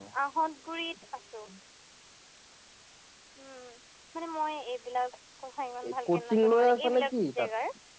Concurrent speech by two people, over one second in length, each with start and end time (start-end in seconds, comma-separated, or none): 5.9-7.5